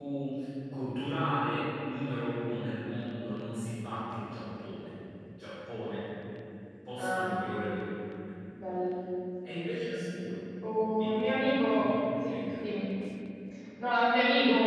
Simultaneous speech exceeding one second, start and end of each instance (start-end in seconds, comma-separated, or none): 11.0-12.6